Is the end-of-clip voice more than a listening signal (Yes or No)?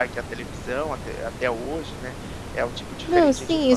Yes